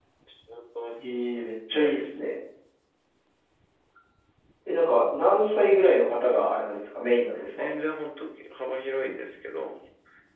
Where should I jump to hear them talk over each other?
1.0 s

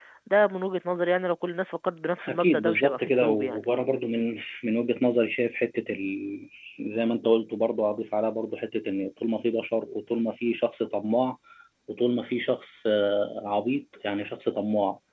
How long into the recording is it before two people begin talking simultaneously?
2.2 s

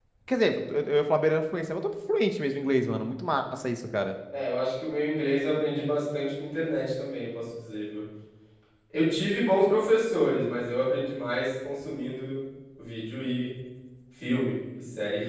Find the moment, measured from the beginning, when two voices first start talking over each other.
none

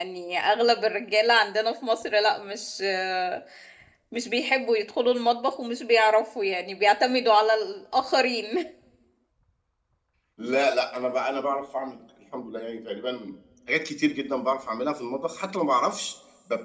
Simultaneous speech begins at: none

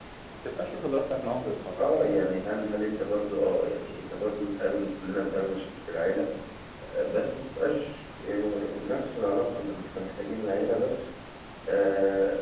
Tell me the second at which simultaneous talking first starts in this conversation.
none

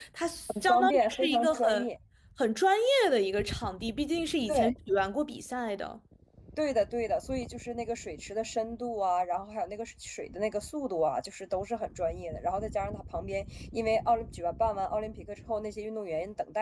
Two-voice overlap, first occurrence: 0.6 s

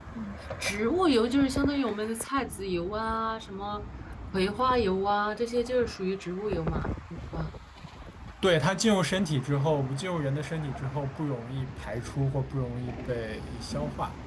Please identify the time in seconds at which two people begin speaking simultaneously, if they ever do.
none

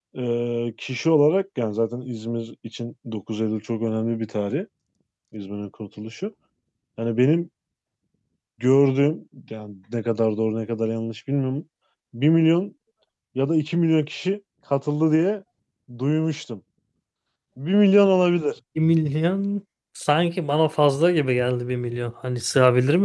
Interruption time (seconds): none

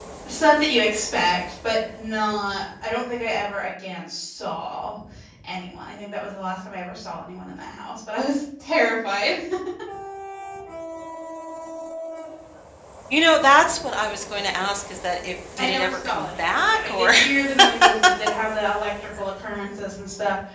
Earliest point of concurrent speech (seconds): 15.6 s

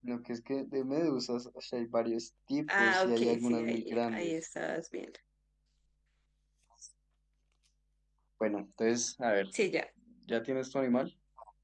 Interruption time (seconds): 2.7 s

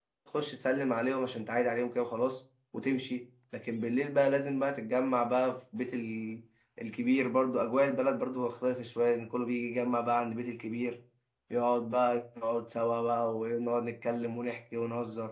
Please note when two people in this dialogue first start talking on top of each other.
none

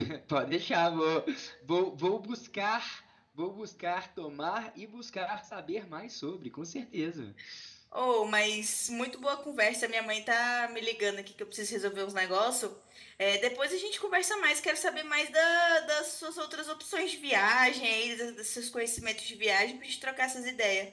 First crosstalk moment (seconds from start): none

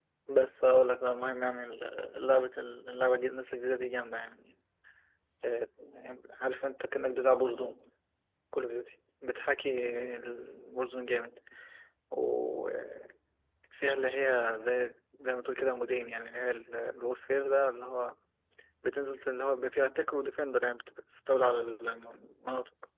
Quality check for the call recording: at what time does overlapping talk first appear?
none

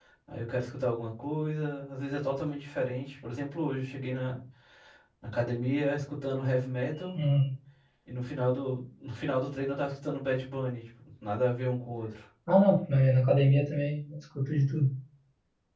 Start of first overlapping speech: none

